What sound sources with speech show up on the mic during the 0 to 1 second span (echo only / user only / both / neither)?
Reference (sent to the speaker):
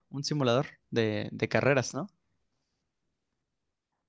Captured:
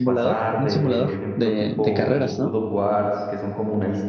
both